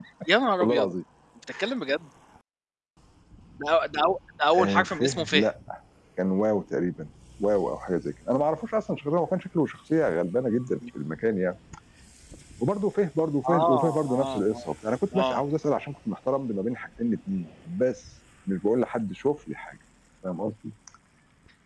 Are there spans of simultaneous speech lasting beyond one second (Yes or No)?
Yes